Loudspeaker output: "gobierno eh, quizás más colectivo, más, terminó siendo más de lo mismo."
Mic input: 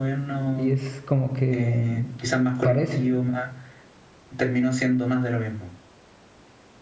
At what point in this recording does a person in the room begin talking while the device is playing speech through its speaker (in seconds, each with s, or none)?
0.4 s